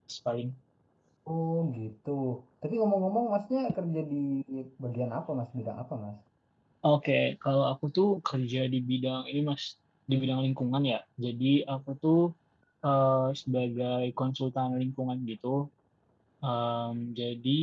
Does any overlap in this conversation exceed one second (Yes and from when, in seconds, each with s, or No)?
No